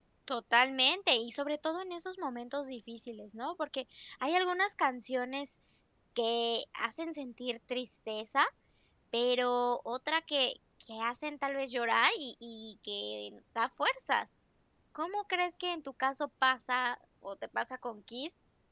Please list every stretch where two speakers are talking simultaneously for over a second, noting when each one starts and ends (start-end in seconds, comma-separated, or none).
none